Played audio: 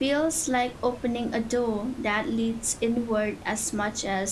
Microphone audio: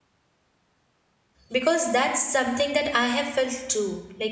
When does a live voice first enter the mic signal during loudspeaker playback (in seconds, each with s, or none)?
1.5 s